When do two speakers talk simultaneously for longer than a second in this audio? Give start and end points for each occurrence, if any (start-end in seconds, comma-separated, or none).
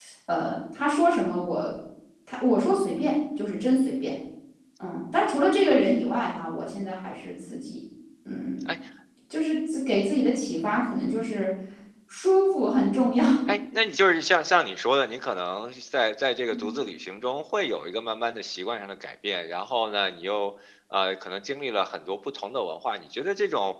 none